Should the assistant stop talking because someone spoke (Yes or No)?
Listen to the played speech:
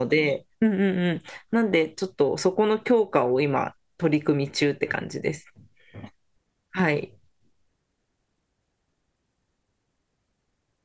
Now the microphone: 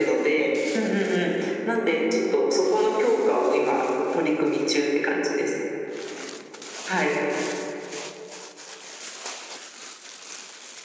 No